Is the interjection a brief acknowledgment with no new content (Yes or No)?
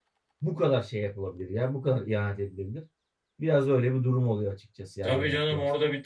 No